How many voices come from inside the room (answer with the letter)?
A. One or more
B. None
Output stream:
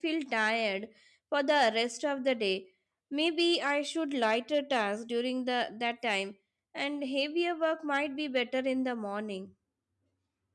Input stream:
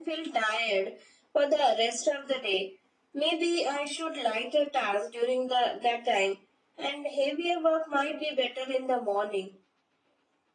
B